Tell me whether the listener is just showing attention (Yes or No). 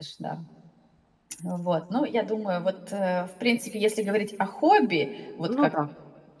Yes